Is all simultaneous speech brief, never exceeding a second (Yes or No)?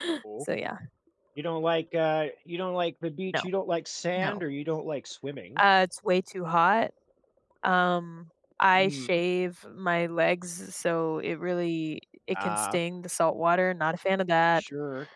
Yes